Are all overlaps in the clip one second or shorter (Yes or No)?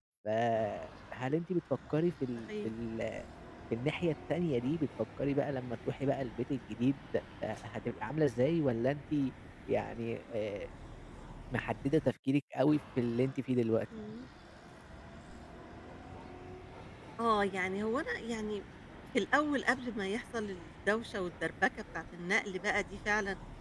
Yes